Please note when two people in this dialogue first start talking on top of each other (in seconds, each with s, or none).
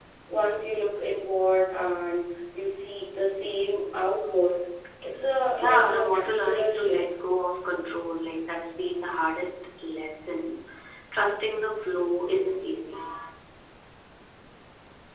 5.6 s